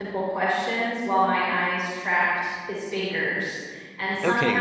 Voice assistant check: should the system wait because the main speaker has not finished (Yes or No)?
No